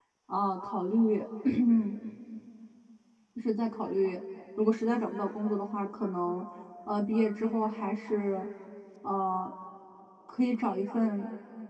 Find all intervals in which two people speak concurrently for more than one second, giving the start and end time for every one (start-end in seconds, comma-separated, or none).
none